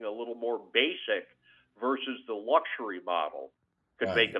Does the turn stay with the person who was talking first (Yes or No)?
Yes